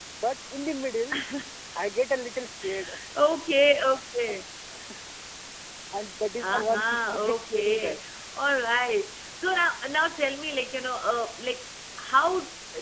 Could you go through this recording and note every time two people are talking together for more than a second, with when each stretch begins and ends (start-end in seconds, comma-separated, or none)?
6.4-8.0